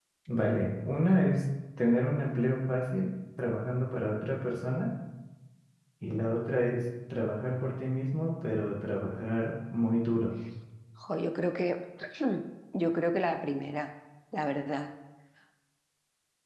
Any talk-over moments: No

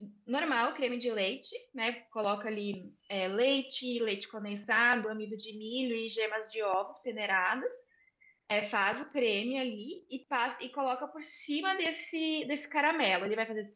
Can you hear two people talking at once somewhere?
No

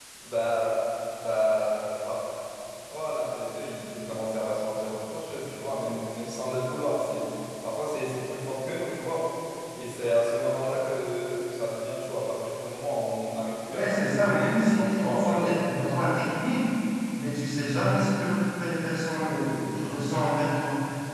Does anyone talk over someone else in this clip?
Yes, from 13.7 s

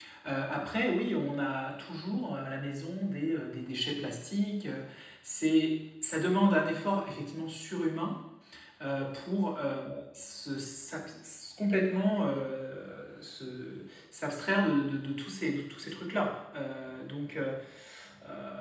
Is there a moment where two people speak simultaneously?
No

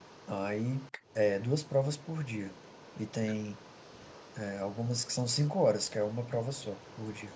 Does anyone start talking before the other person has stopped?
No

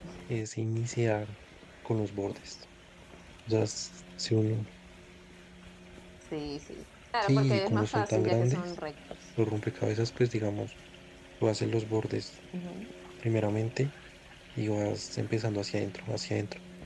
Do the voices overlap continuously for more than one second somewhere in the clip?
Yes, from 7.2 s

